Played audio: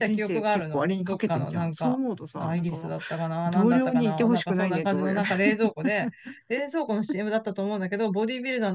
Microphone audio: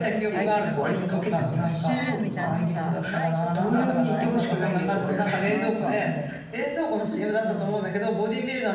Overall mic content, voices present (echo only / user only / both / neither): both